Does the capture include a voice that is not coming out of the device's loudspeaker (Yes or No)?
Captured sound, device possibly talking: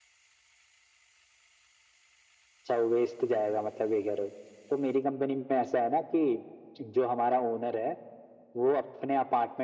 No